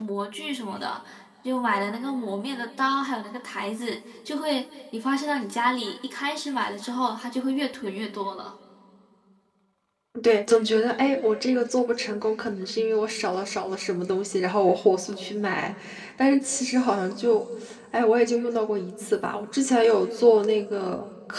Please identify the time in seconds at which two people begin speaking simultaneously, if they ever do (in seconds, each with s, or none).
none